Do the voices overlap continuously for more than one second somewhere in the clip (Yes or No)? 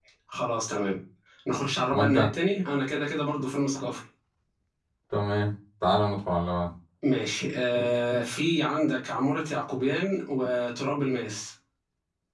No